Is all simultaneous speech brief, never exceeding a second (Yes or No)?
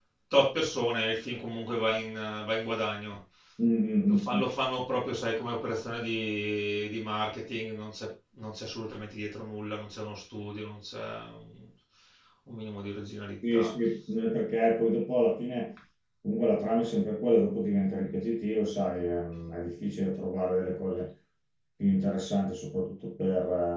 Yes